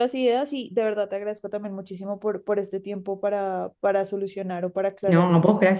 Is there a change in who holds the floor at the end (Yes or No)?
Yes